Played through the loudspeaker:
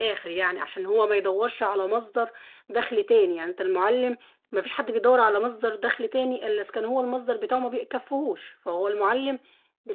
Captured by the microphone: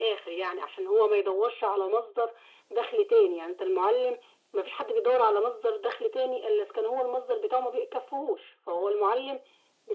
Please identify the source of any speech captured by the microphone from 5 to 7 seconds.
echo only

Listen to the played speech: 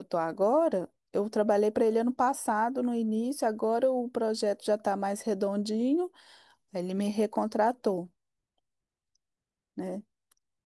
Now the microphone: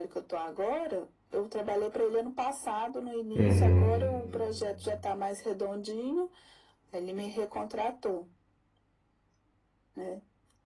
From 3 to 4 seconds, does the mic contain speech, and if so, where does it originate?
both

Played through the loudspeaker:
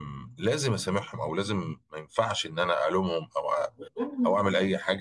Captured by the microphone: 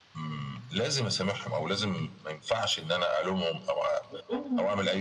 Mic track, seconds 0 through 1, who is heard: echo only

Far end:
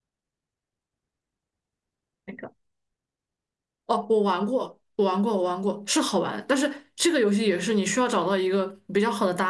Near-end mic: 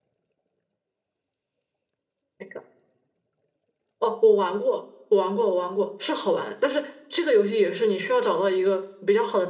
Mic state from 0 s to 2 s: neither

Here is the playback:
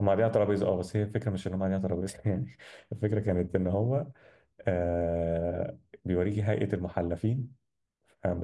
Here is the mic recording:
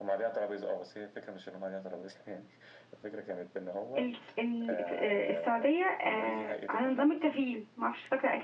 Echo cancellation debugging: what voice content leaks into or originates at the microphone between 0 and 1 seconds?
echo only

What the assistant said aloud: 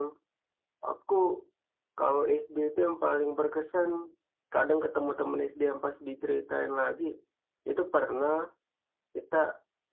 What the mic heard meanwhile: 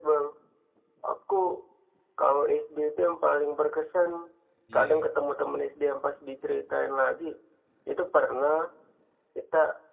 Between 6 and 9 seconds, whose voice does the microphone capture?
echo only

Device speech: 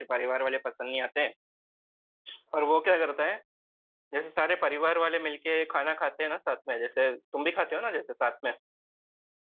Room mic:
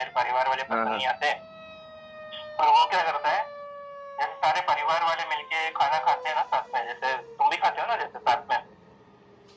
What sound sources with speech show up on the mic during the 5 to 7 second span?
echo only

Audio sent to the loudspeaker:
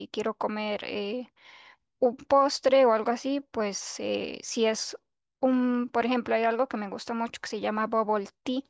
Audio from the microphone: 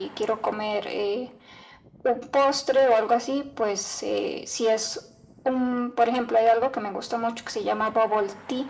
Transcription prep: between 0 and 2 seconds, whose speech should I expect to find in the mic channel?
echo only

